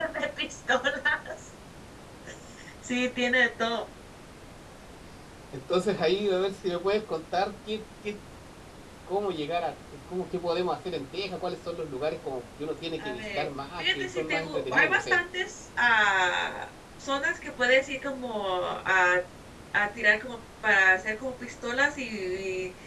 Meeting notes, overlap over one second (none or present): present